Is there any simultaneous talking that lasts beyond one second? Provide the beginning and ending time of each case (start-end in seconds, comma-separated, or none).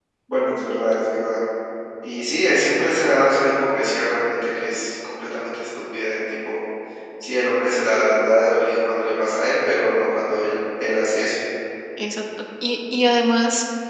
none